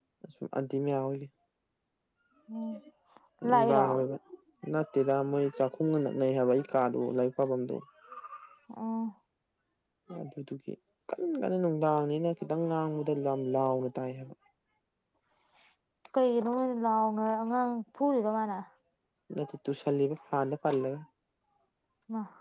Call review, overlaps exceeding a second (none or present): none